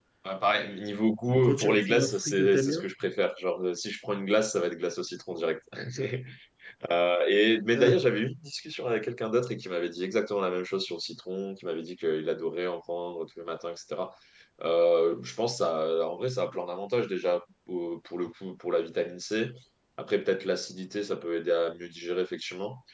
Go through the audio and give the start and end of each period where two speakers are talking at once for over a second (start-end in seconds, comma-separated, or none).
1.5-2.9